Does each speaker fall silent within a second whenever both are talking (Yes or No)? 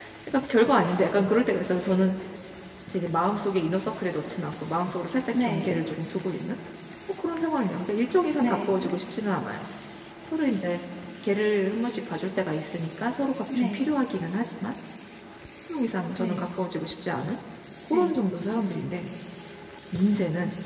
Yes